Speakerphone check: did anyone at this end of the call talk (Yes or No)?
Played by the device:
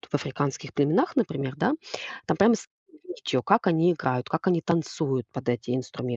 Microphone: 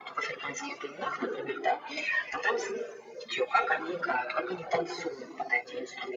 No